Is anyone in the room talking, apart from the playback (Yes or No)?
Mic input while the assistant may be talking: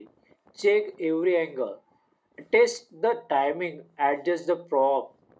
No